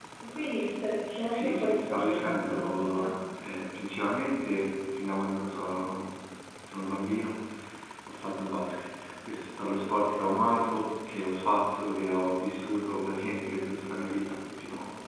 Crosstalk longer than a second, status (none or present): present